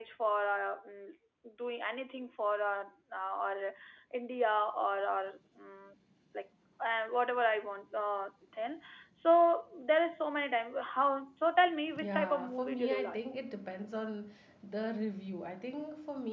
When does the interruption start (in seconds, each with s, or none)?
11.9 s